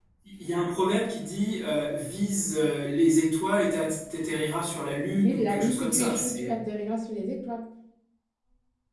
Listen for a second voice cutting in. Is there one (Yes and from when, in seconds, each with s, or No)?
Yes, from 5.1 s